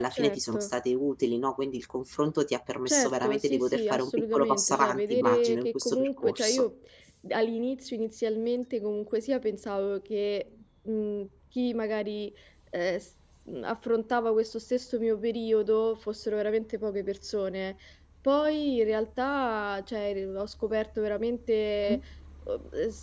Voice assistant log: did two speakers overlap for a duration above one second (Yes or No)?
Yes